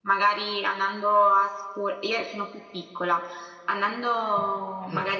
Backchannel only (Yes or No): Yes